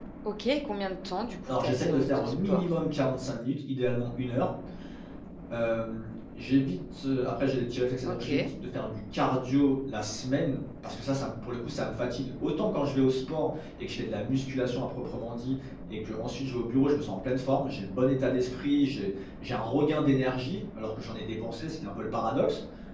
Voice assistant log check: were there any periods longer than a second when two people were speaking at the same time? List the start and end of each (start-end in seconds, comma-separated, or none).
1.5-2.7